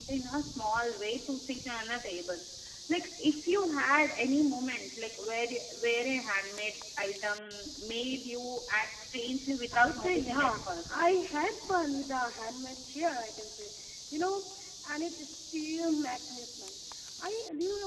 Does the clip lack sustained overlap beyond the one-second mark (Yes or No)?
No